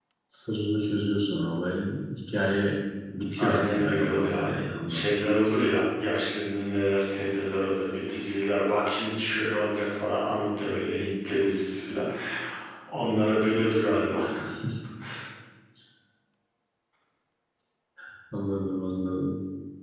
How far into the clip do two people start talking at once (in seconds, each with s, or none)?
3.3 s